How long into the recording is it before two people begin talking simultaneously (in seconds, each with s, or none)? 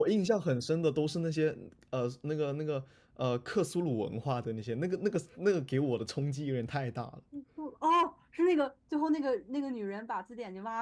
none